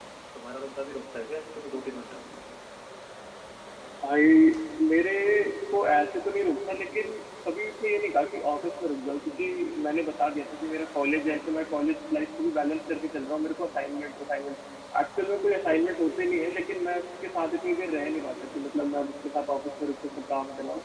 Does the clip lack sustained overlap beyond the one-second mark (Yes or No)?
Yes